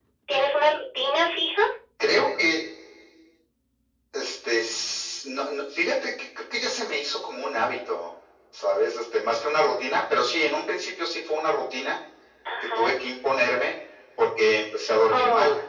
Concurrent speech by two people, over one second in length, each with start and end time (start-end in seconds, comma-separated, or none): none